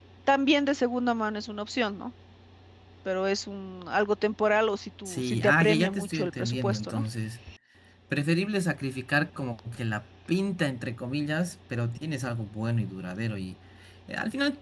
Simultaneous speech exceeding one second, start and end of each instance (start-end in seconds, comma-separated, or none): 5.0-7.0